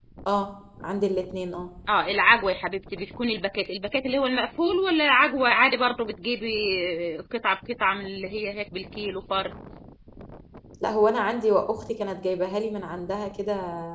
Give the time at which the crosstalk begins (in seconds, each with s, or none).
none